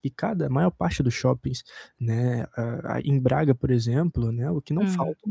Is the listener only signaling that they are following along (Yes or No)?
Yes